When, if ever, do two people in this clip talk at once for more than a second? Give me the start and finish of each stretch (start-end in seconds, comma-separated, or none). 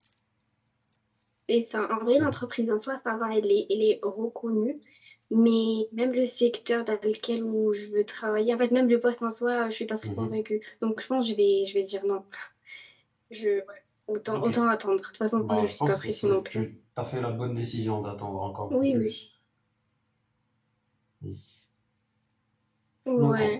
15.4-16.6